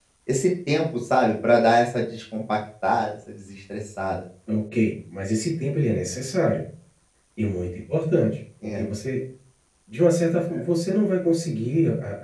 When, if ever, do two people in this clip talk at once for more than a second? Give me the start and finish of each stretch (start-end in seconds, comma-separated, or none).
none